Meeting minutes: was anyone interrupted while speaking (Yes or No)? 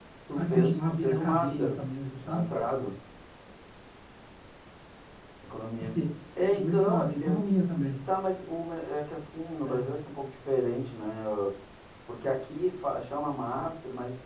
Yes